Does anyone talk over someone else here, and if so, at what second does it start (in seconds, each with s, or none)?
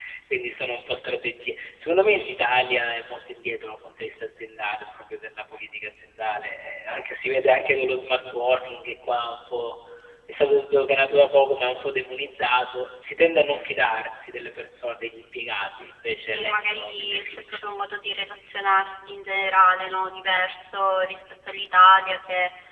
16.1 s